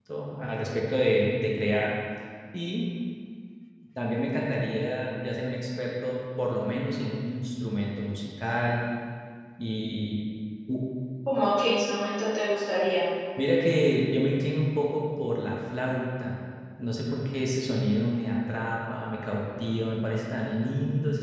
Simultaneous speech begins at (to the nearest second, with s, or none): none